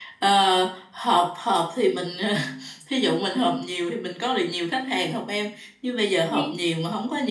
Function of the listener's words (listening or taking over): listening